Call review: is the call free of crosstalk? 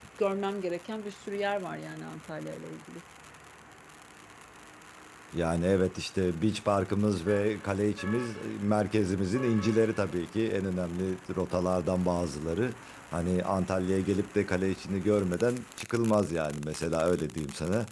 Yes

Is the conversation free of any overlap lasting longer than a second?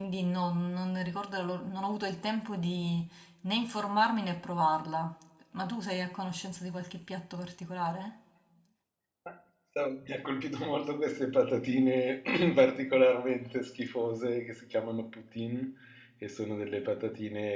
Yes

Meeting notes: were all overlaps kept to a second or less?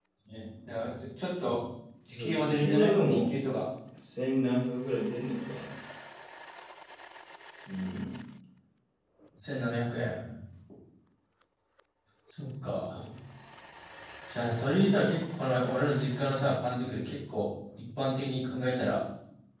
No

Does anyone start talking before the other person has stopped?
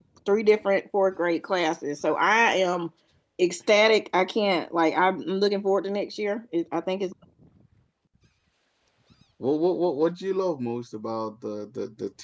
No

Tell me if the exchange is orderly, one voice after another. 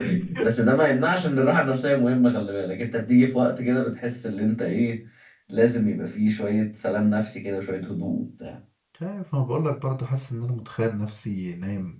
Yes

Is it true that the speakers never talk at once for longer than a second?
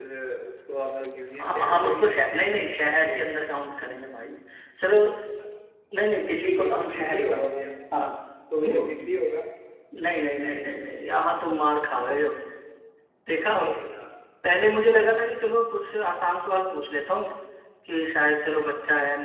No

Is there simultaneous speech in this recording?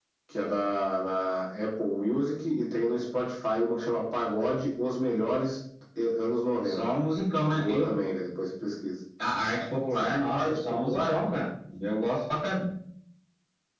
Yes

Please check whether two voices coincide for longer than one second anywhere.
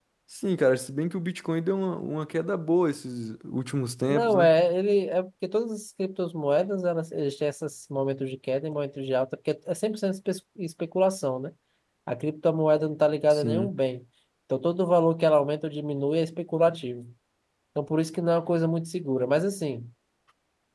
No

